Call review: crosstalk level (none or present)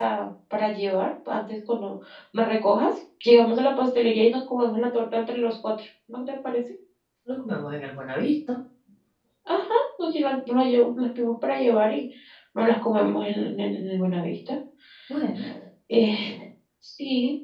none